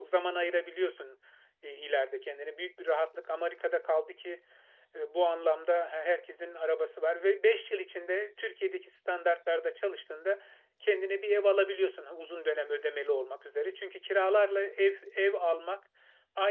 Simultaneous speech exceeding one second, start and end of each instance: none

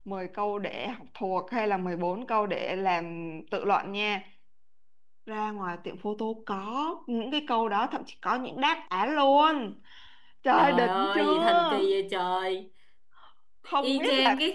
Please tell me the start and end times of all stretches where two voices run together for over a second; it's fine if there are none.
10.6-11.8

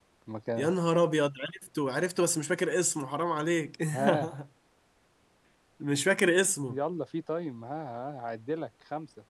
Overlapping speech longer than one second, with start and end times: none

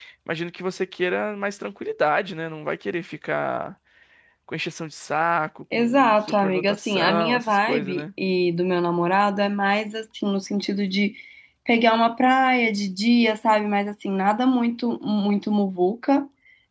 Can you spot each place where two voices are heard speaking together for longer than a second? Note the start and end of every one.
5.8-8.0

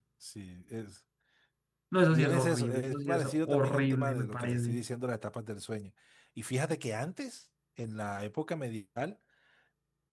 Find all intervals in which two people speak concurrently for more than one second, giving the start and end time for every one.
2.1-4.8

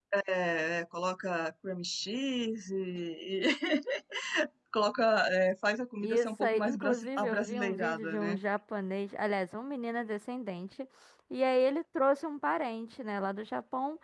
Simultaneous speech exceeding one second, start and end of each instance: 6.0-8.4

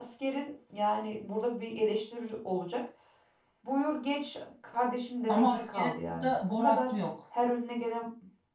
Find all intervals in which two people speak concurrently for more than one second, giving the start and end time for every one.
5.3-6.9

